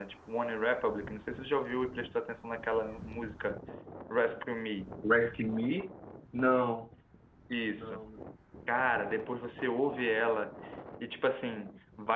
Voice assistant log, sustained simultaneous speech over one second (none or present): none